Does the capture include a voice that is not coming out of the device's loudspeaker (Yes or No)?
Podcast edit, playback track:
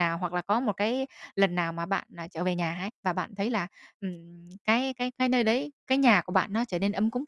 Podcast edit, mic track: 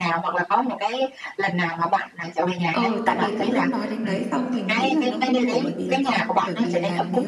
Yes